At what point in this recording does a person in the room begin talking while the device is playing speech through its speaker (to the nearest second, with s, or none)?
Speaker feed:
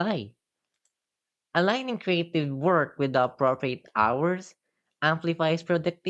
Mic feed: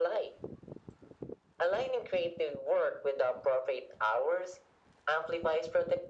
none